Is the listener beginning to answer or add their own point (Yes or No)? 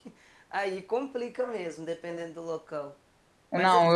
Yes